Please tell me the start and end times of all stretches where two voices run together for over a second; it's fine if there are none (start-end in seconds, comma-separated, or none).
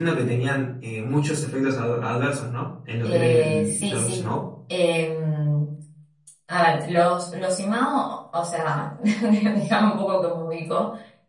3.0-4.2